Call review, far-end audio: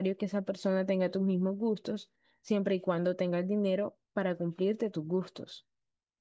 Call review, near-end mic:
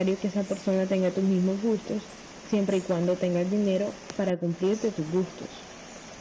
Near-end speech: none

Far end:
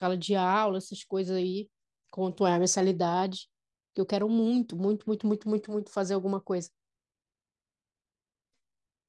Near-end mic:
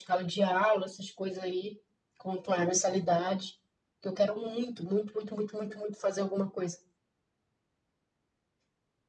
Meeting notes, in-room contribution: none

